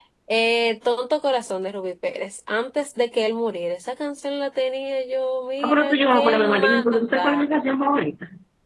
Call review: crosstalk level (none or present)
present